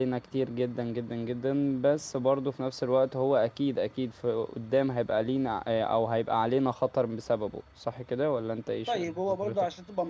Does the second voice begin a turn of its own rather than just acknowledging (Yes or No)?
Yes